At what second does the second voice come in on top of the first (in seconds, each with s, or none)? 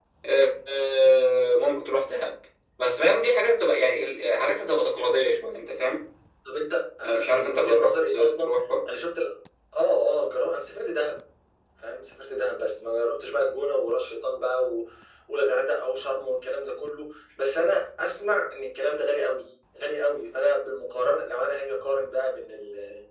7.0 s